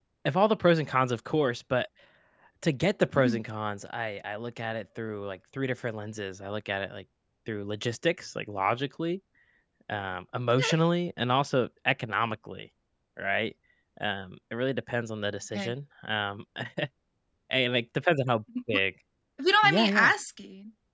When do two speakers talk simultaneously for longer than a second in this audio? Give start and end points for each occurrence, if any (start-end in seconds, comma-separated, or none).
none